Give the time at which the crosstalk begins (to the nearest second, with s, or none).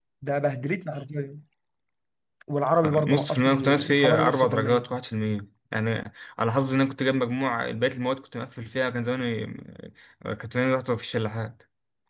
3 s